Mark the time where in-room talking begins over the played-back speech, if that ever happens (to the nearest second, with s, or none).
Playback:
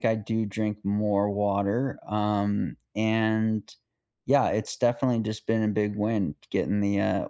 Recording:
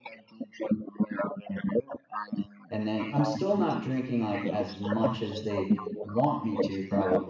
3 s